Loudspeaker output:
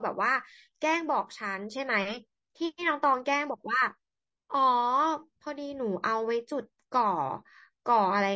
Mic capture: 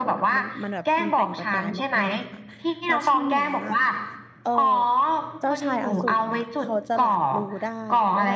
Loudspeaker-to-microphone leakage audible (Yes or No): Yes